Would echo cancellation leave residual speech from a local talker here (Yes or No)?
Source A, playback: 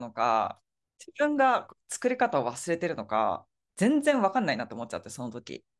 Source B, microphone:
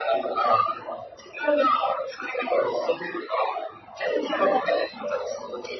No